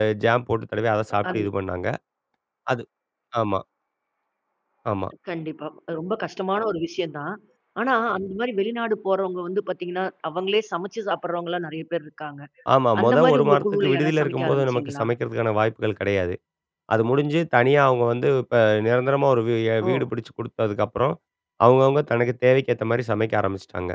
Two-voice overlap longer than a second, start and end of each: 13.0-15.0

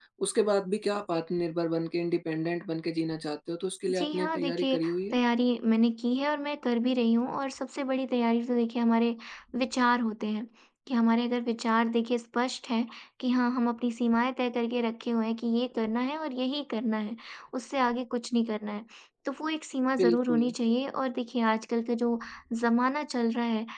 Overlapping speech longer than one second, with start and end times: 4.0-5.2

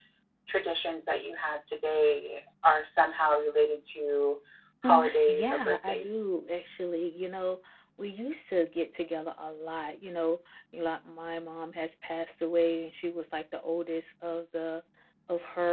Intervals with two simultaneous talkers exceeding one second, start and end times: 4.8-6.2

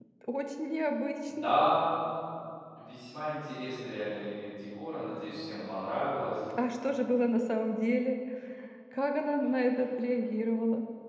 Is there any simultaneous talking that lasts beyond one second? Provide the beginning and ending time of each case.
none

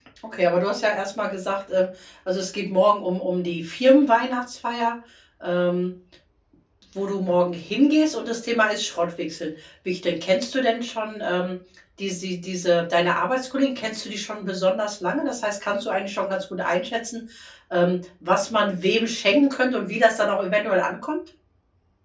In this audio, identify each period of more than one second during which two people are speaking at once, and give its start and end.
none

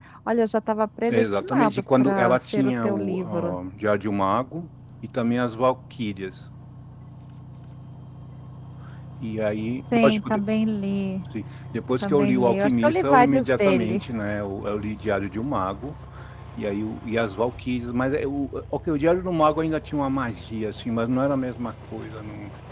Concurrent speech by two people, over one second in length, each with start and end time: 1.1-3.6, 12.0-14.0

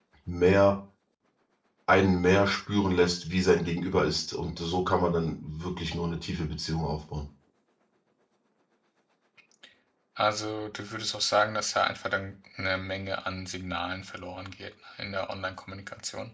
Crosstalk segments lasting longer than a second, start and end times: none

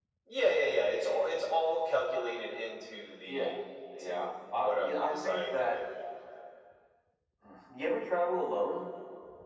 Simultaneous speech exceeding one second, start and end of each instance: 4.0-5.8

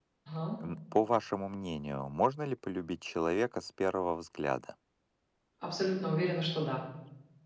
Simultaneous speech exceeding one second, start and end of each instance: none

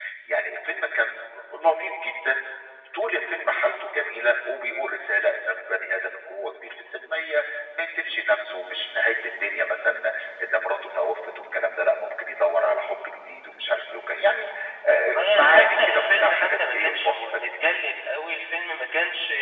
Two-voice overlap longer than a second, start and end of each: 15.2-17.5

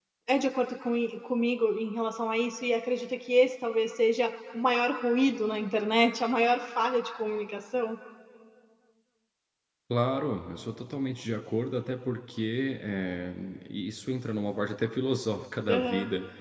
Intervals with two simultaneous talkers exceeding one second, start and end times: none

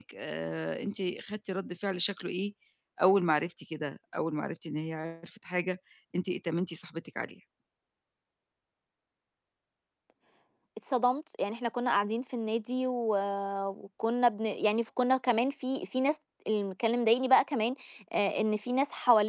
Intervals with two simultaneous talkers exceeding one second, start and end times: none

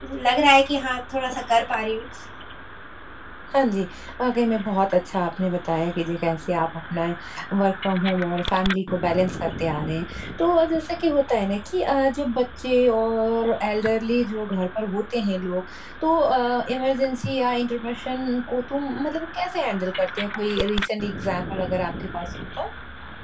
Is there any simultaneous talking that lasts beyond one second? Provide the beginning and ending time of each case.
none

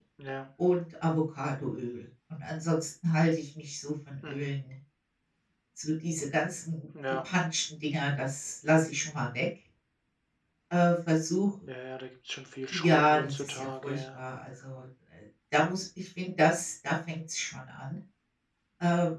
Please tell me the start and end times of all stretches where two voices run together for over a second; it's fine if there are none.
12.7-14.2

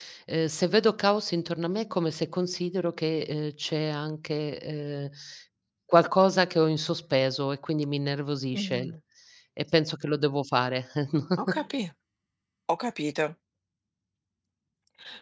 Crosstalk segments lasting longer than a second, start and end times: none

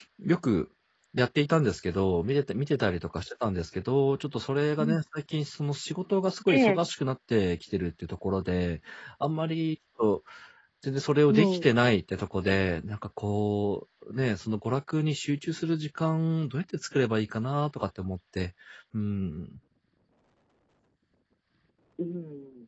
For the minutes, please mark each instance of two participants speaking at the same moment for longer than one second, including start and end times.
none

